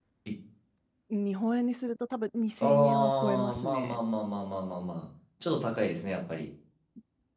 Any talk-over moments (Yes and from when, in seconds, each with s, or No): Yes, from 2.6 s